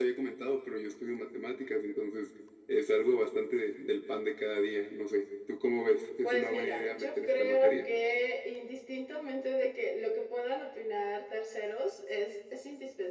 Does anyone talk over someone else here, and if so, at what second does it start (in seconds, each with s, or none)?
6.2 s